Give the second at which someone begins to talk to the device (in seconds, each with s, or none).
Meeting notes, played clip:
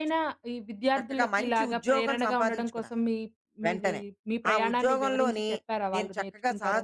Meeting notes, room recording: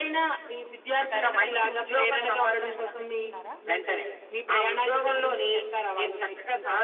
1.1 s